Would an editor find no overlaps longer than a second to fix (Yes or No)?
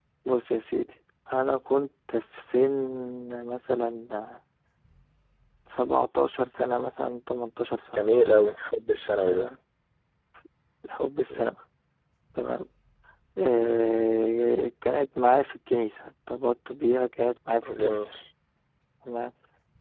Yes